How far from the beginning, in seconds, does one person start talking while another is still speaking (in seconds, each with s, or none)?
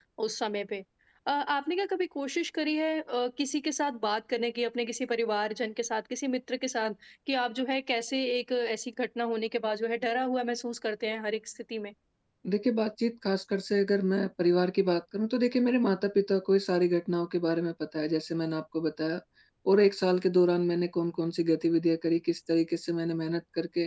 none